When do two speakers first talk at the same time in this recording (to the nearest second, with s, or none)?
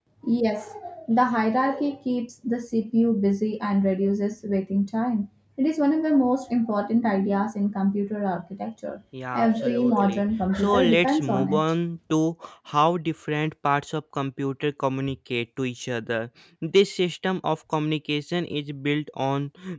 9 s